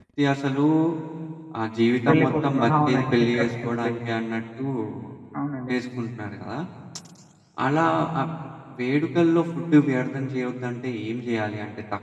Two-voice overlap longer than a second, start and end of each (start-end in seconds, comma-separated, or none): 2.1-3.9